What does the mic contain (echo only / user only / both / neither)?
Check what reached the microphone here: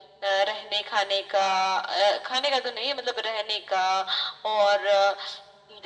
echo only